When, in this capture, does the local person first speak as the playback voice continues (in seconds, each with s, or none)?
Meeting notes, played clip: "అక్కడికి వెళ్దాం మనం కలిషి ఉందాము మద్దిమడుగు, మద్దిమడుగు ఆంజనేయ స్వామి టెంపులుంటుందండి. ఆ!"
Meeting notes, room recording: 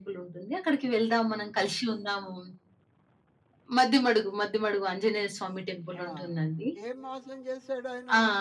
5.9 s